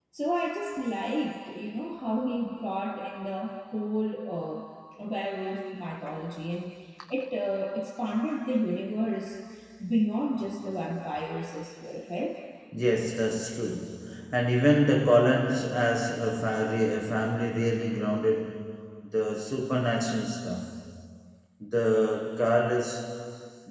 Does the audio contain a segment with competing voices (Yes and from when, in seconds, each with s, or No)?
No